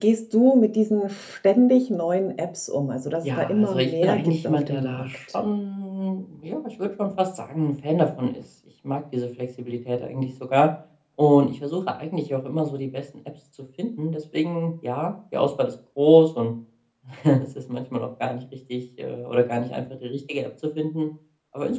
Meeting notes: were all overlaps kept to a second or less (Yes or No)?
No